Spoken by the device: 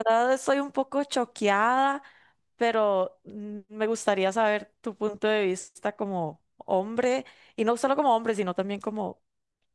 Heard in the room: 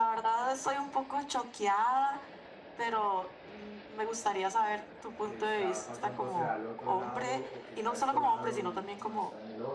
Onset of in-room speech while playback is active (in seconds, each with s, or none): 5.2 s